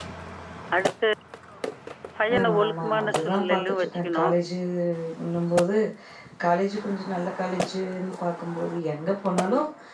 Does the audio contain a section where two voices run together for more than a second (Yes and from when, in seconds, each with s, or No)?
Yes, from 2.3 s